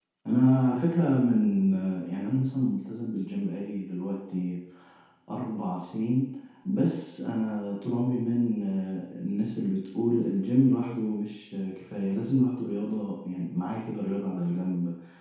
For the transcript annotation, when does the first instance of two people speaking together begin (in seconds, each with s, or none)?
none